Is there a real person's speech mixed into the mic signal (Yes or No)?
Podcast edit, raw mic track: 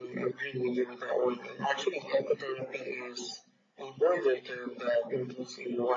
No